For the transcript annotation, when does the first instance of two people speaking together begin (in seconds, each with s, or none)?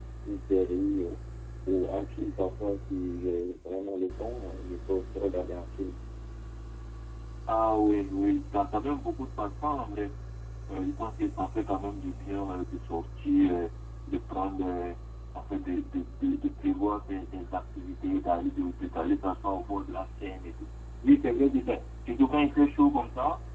none